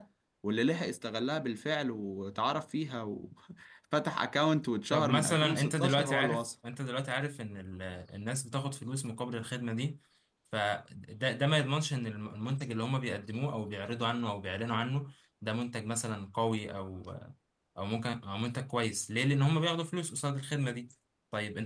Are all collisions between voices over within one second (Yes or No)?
No